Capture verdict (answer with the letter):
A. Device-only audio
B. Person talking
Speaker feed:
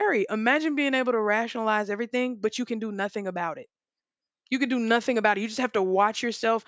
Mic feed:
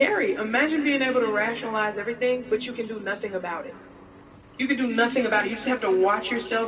A